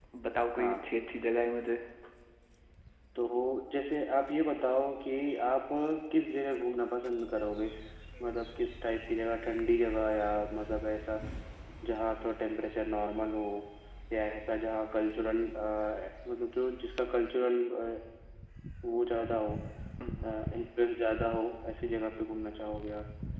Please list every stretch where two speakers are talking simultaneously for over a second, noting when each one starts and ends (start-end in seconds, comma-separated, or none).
none